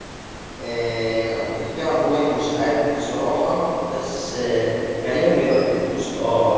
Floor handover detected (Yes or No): No